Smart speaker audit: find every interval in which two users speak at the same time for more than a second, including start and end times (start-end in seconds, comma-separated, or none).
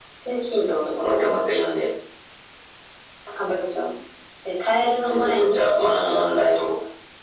5.1-6.6